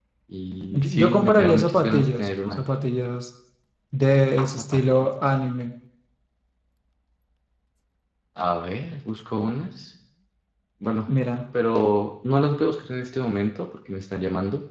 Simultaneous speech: Yes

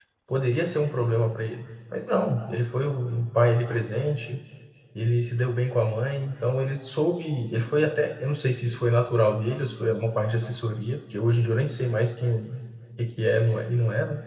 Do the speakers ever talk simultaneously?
No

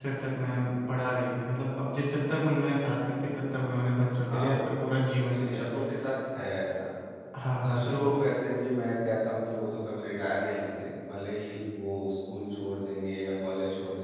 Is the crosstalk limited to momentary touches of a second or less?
Yes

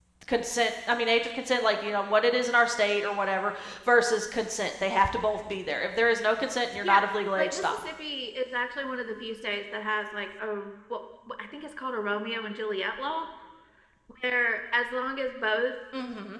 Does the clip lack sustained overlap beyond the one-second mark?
Yes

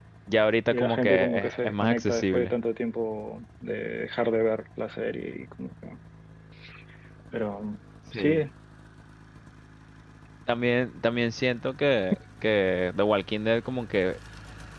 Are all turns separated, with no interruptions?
No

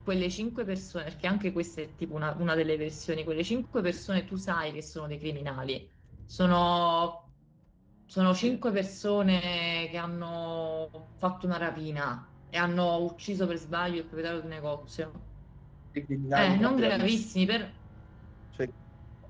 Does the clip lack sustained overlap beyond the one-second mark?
No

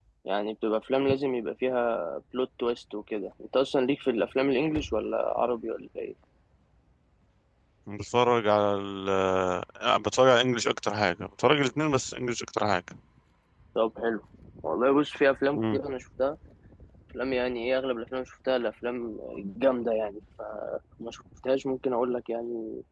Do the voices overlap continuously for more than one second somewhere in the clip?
No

